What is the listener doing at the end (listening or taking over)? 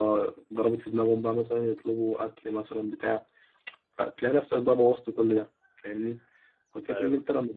listening